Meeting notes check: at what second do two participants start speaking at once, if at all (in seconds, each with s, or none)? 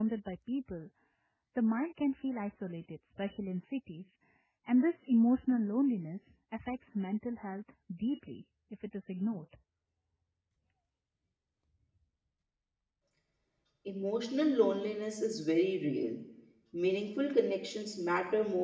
none